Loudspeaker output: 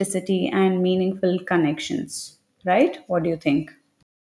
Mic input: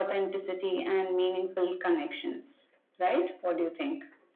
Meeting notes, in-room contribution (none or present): none